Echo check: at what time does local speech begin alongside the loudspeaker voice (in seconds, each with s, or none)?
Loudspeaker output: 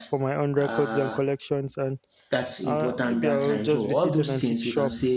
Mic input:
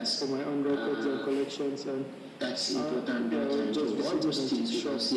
none